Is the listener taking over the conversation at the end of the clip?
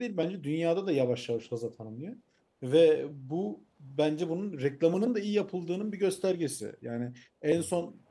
No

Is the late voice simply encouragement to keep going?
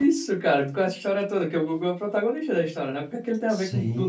No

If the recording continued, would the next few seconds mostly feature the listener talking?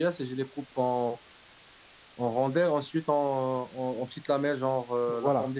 Yes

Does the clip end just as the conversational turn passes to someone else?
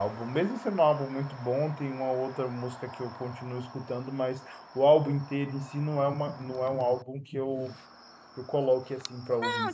Yes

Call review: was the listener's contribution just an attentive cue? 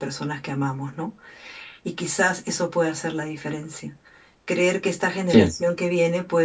Yes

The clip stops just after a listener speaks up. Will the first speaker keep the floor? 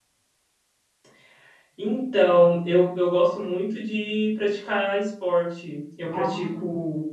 Yes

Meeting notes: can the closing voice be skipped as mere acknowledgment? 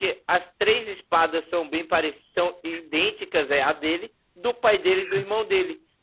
Yes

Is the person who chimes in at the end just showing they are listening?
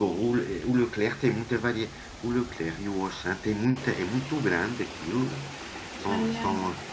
Yes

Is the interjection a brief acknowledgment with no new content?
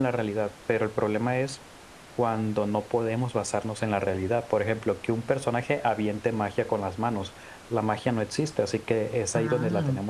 Yes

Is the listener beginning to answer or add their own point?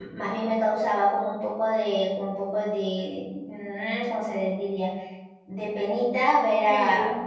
No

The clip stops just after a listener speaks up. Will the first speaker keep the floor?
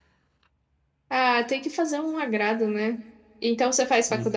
Yes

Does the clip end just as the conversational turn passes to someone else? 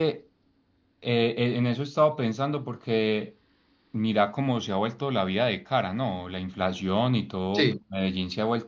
No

